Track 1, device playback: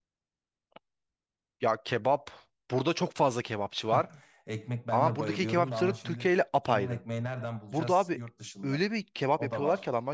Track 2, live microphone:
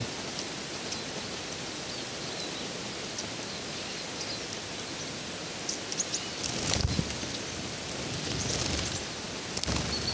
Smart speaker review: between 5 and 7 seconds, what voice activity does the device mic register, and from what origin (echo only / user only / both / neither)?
neither